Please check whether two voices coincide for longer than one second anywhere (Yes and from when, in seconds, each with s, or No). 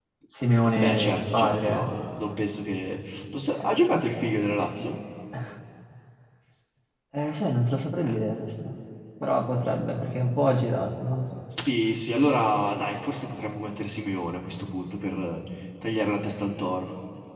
Yes, from 0.7 s